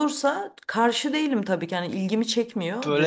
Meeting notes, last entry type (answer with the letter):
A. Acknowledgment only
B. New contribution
B